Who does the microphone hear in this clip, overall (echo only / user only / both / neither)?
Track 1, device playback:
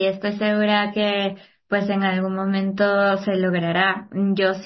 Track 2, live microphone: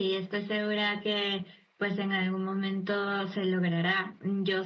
echo only